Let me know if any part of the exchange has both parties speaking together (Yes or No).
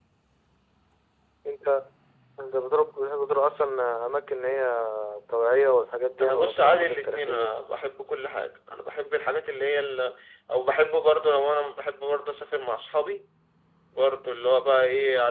Yes